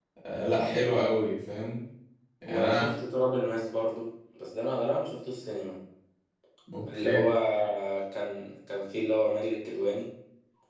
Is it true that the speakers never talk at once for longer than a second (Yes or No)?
Yes